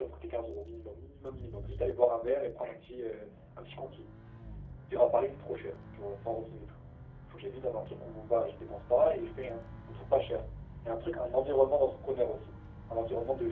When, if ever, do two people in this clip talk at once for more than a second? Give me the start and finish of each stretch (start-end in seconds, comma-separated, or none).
none